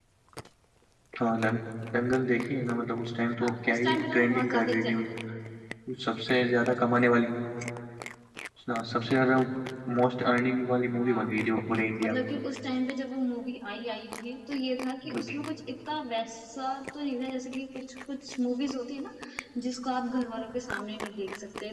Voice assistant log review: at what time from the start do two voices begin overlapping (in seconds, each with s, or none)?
3.4 s